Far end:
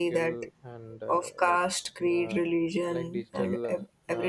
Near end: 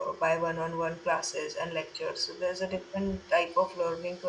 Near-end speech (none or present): present